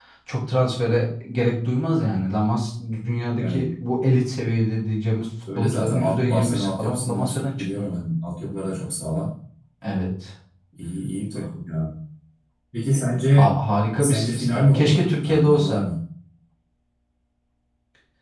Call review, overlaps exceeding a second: present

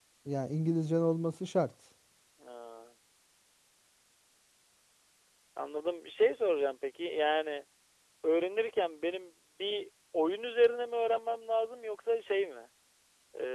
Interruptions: none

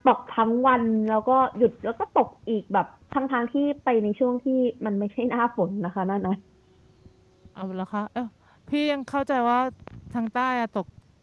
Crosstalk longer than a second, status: none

